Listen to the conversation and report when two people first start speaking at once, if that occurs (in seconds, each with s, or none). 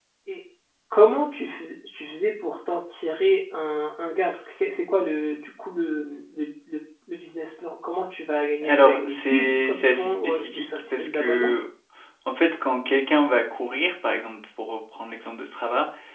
8.6 s